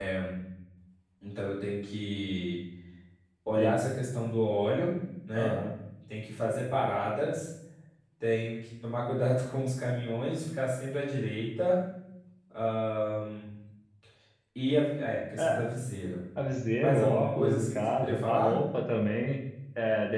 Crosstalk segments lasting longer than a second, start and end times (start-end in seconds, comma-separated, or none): 16.8-18.5